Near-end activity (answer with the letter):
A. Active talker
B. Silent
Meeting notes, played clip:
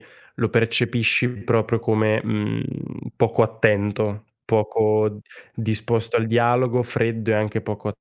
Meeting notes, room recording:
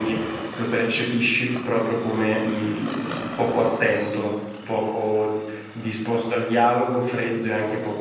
B